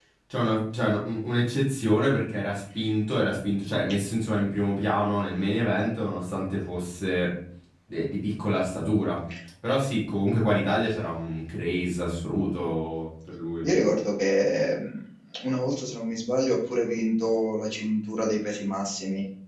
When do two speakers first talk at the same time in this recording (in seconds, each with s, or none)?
none